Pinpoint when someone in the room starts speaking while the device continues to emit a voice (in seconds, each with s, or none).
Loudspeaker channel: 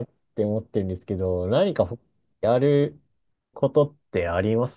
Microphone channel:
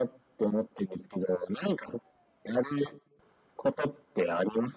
none